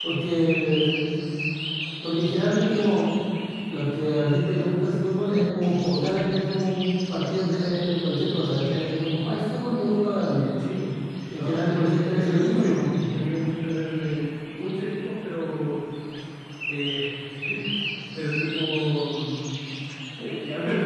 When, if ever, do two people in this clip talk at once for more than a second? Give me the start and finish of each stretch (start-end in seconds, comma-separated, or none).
11.3-12.8